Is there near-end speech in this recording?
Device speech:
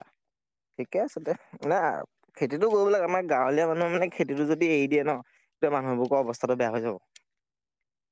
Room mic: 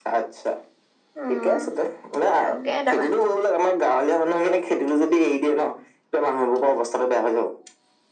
Yes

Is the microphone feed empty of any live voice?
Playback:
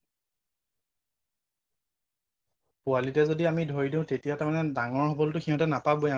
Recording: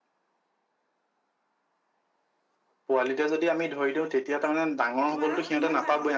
No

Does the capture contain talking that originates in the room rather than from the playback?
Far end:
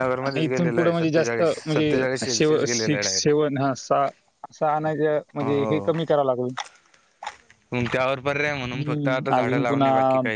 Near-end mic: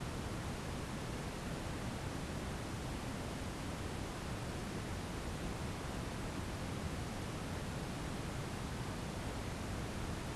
No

